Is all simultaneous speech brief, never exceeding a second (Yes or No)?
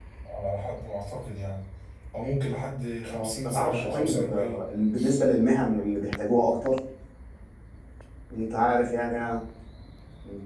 No